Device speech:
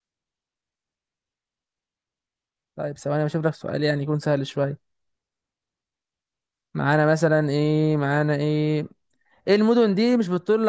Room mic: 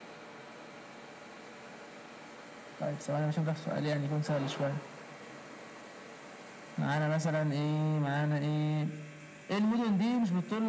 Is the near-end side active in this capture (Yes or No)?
No